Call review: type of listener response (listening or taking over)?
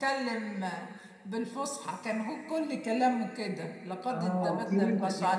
taking over